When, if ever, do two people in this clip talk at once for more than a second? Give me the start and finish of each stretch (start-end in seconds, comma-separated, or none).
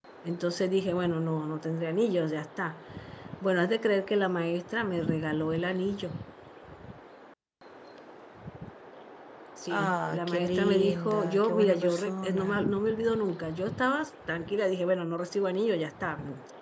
9.7-12.6